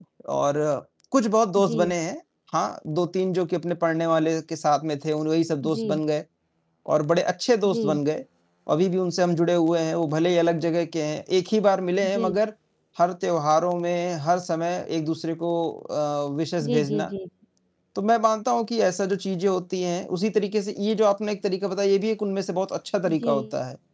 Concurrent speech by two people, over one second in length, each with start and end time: none

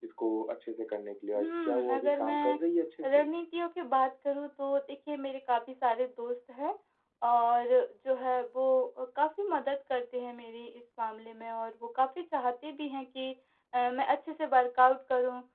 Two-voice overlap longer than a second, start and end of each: 1.3-2.6

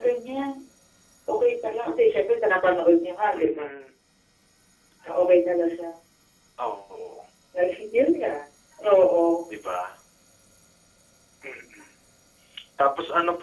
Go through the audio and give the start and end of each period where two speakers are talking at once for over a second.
none

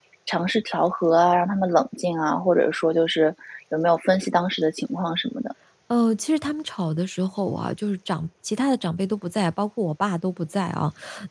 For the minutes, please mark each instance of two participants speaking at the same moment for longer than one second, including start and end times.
none

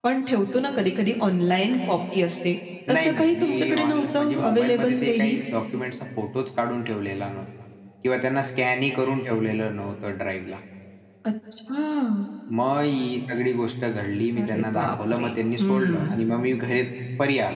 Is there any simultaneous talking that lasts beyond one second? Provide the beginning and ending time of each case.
2.9-5.4, 14.4-16.1

